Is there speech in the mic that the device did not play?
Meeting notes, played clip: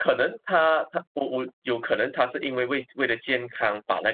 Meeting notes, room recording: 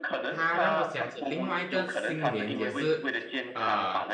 Yes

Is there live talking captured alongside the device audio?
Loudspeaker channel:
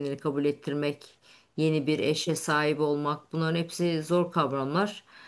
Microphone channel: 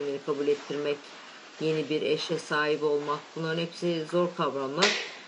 No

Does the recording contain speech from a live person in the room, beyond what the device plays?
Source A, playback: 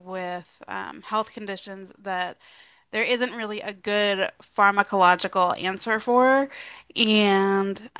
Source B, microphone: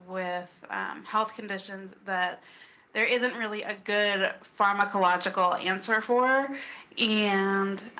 No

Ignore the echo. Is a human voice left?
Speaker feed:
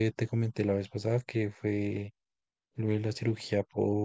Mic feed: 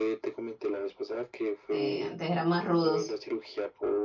Yes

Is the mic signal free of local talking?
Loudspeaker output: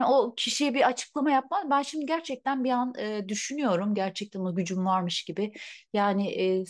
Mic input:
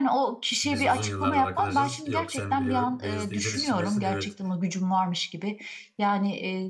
No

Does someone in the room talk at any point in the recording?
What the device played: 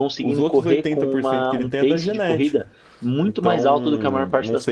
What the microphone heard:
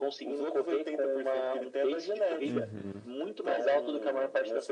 Yes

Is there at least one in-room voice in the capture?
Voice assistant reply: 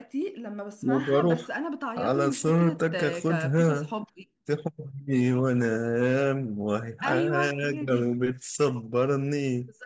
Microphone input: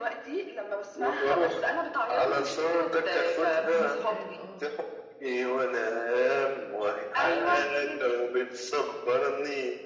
Yes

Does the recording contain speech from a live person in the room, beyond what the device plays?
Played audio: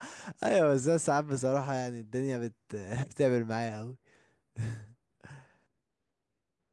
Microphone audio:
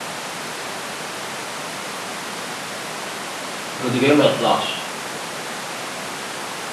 Yes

